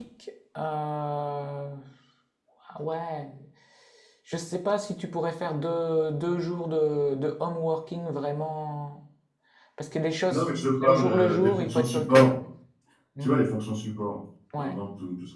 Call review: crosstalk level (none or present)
present